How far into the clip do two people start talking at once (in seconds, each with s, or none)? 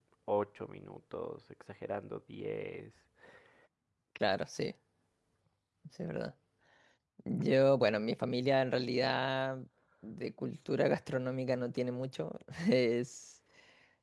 none